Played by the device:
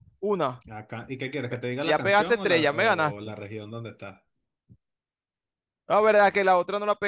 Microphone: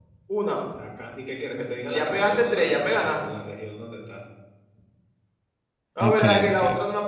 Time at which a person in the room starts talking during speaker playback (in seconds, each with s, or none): 6.0 s